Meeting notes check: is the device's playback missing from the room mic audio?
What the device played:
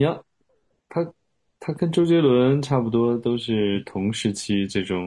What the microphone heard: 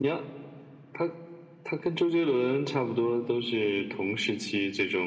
No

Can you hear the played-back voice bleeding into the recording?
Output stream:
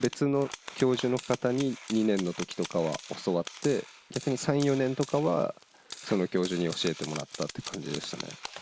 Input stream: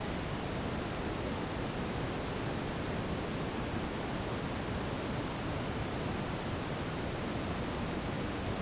No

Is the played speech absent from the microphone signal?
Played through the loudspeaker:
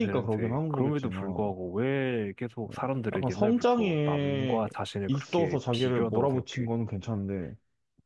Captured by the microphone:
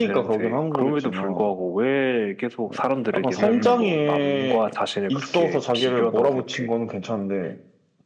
No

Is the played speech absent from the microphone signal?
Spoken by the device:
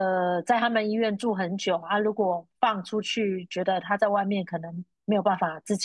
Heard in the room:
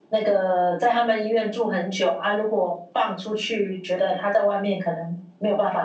No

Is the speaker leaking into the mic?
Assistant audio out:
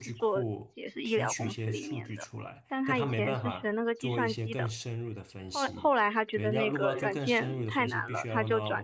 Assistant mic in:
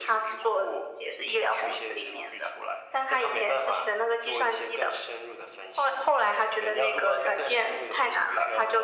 Yes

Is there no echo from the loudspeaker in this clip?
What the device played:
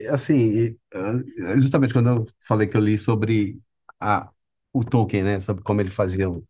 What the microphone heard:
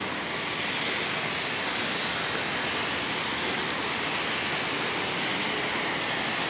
Yes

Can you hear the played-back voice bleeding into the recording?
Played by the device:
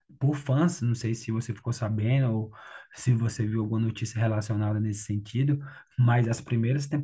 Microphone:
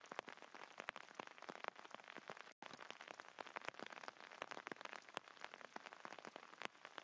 No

